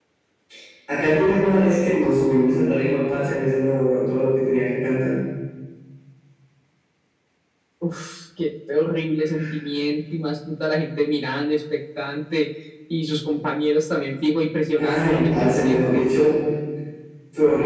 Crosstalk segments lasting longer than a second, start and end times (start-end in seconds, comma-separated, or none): 14.8-16.1